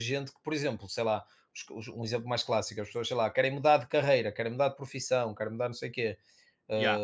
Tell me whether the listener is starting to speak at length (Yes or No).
No